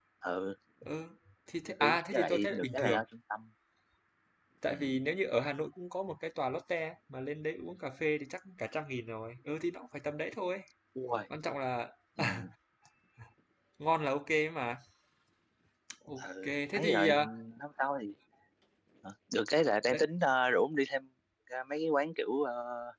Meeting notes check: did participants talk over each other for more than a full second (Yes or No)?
Yes